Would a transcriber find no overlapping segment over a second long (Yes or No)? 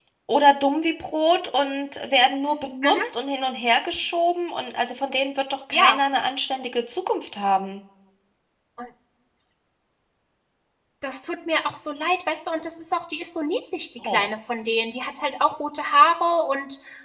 Yes